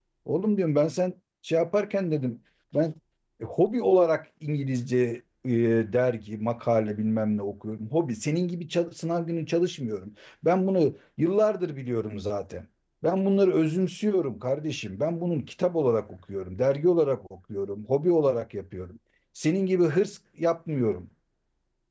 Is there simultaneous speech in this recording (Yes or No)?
No